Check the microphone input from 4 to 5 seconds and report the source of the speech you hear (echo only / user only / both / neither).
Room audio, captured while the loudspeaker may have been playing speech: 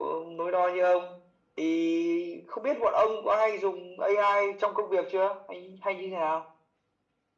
echo only